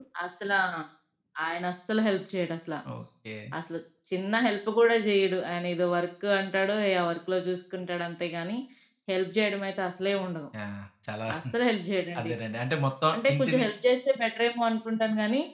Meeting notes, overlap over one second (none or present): none